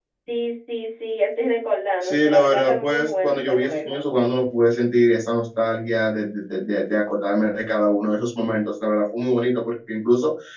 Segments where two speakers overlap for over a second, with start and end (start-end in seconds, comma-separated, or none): 2.0-4.0